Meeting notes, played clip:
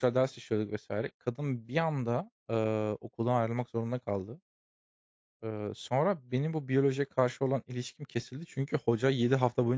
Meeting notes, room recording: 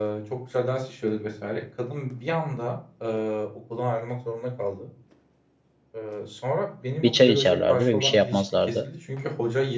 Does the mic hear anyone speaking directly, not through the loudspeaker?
Yes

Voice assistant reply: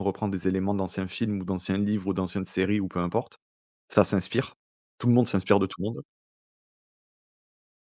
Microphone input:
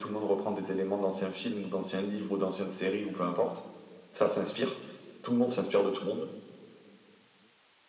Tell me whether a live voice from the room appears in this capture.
No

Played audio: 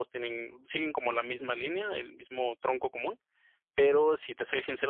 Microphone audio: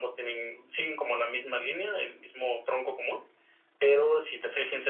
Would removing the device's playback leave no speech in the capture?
Yes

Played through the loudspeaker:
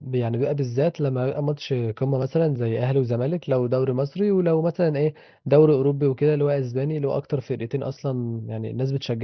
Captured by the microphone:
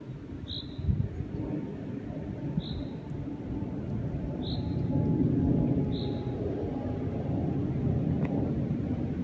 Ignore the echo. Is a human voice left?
No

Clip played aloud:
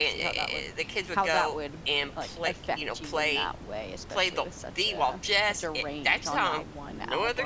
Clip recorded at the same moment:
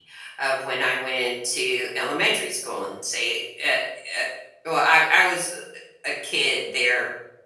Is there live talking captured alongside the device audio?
Yes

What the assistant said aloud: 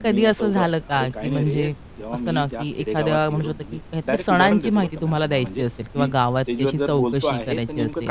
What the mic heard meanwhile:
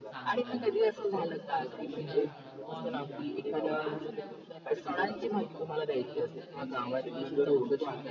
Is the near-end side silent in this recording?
No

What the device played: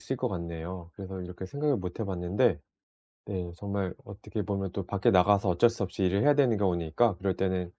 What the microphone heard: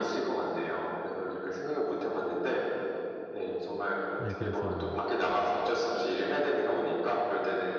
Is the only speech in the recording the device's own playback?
No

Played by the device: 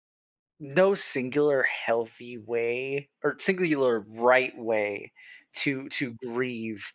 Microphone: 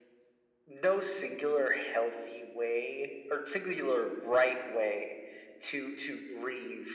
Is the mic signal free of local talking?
Yes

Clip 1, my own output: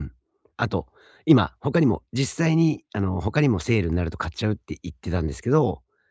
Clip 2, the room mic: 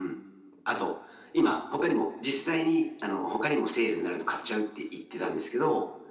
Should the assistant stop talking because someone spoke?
No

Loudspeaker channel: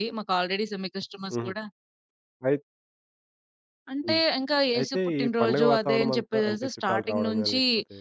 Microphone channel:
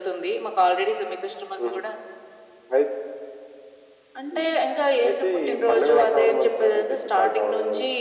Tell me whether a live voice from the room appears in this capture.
No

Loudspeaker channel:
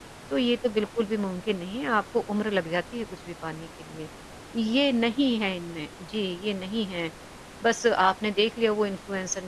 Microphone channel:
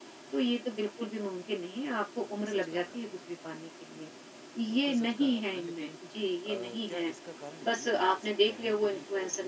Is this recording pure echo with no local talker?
No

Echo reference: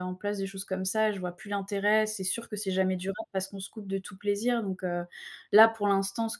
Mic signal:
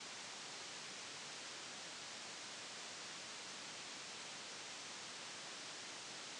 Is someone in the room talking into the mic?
No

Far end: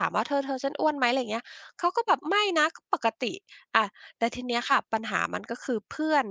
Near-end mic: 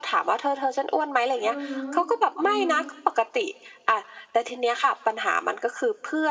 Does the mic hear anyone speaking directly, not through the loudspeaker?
Yes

